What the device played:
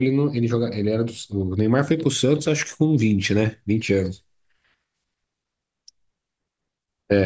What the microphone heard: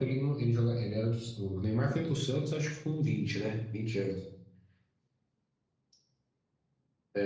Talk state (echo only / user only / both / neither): echo only